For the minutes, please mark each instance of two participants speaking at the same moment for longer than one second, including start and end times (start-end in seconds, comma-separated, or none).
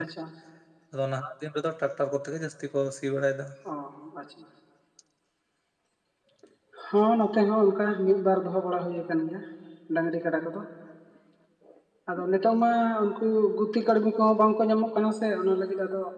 none